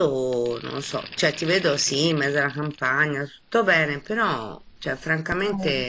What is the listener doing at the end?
listening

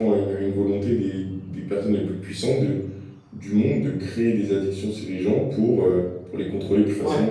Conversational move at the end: taking over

